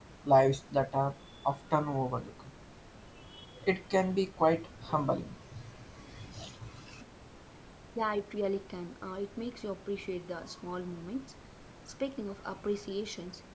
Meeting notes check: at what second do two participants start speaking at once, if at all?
none

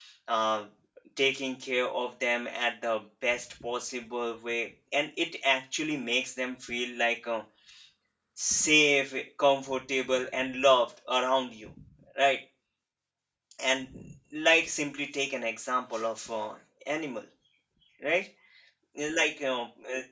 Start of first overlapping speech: none

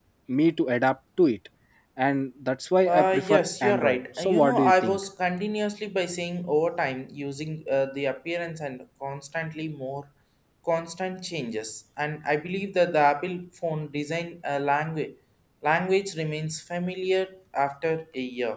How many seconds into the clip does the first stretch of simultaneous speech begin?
2.9 s

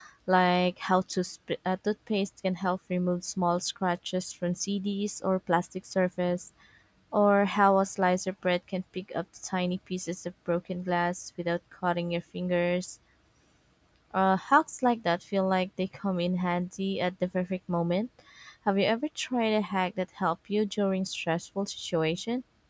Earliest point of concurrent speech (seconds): none

